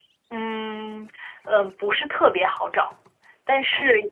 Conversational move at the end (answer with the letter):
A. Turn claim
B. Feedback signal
B